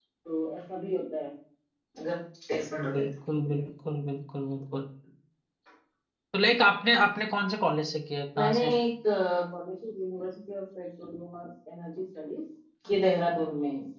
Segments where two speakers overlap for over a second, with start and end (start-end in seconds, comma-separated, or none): none